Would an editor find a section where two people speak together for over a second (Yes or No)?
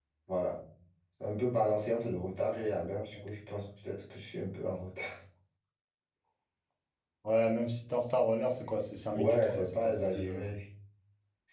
Yes